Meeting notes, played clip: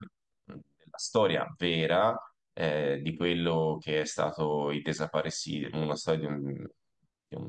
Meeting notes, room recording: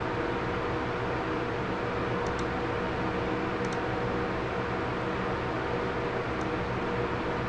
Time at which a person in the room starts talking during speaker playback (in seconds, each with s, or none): none